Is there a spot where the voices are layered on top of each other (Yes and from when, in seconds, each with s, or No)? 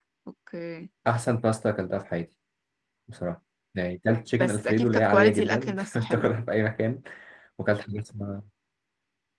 Yes, from 4.3 s